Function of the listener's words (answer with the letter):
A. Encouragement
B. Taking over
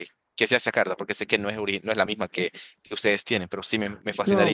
B